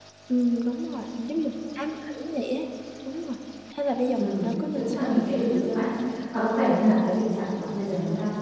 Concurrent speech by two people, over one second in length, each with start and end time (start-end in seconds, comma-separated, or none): 4.2-5.9